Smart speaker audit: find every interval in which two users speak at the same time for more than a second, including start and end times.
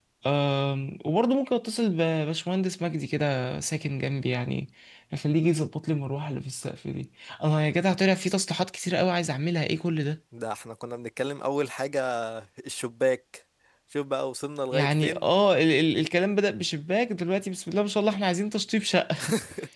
none

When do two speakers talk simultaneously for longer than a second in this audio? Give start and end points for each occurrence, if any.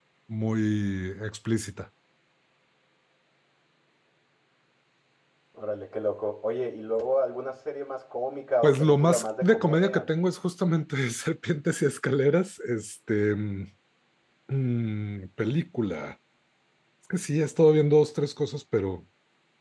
8.6-10.0

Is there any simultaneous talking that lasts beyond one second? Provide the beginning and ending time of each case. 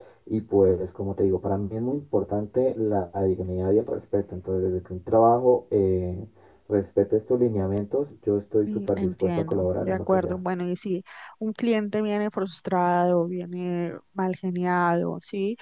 8.7-10.4

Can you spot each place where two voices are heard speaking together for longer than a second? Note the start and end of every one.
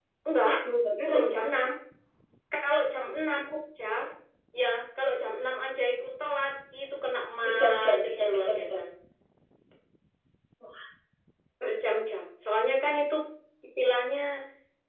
7.4-8.8

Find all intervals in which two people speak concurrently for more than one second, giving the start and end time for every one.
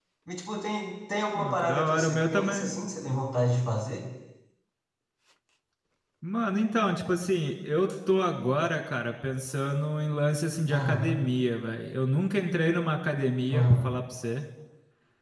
1.4-2.7

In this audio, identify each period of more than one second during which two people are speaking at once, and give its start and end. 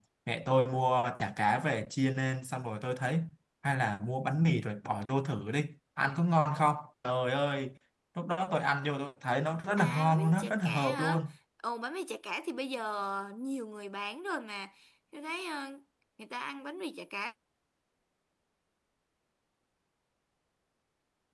9.8-11.2

